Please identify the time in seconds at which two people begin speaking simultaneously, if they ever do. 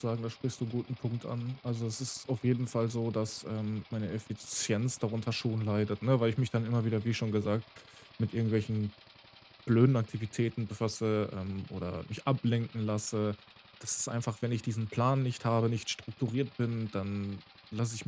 none

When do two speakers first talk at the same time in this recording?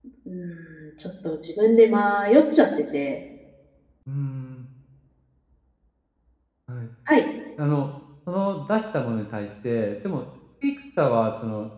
none

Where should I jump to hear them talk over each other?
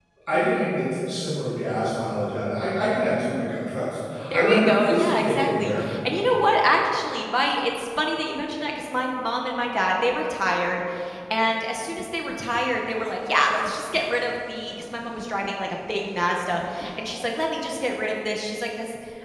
4 s

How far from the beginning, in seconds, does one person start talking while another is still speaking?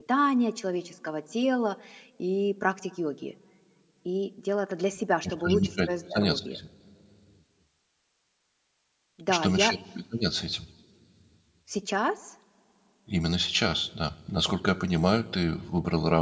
5 s

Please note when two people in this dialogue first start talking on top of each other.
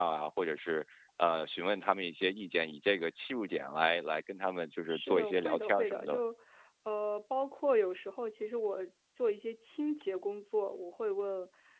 5 s

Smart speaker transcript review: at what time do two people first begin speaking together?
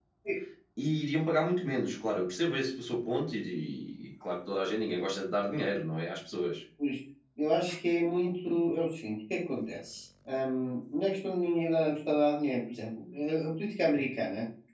none

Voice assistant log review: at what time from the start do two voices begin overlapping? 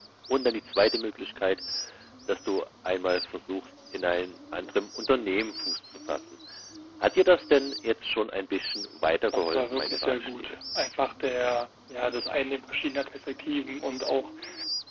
9 s

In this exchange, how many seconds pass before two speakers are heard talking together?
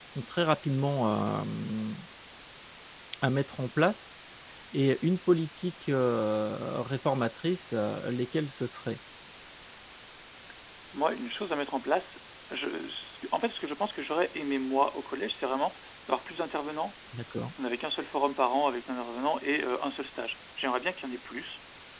none

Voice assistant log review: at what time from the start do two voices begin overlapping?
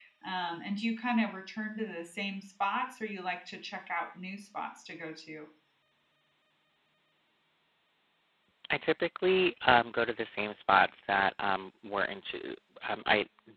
none

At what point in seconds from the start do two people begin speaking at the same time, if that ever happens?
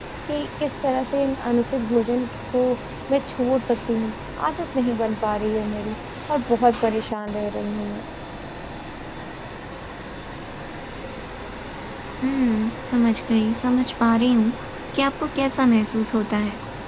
none

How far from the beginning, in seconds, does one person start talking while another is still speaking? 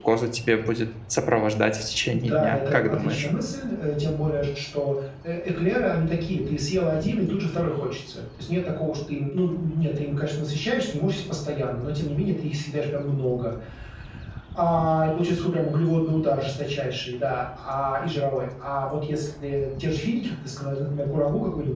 2 s

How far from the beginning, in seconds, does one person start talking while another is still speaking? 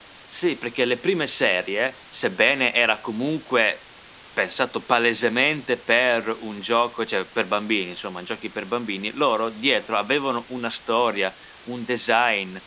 none

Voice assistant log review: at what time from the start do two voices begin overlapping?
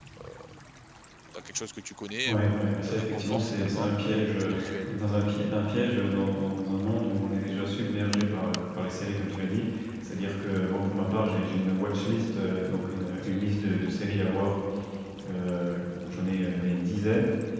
2 s

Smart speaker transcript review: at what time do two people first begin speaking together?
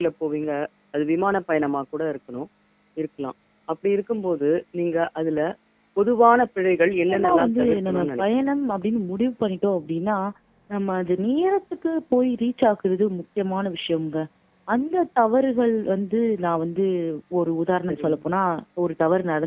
7 s

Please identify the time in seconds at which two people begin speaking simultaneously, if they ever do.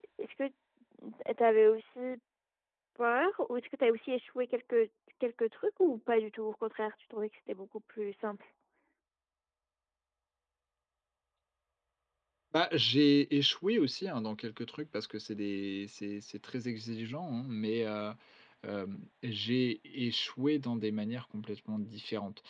none

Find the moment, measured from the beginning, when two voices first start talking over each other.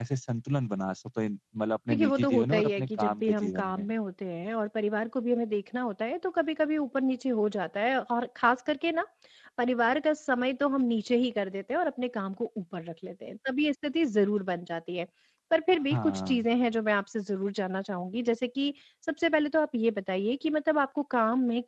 2 s

